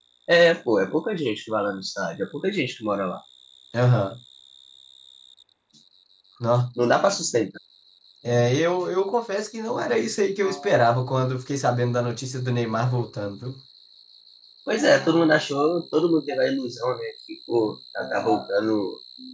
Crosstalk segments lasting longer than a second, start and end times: none

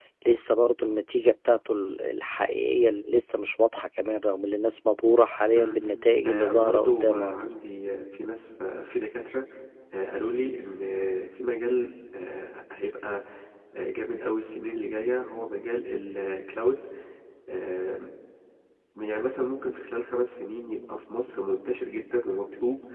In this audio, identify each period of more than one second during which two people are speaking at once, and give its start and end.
6.2-7.5

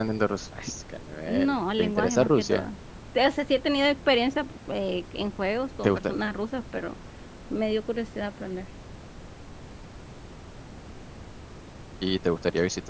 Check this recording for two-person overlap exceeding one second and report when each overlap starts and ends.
1.3-2.7

